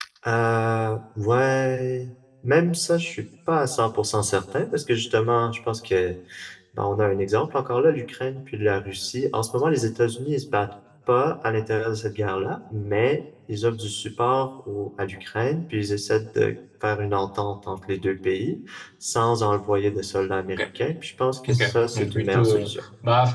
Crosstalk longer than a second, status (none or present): present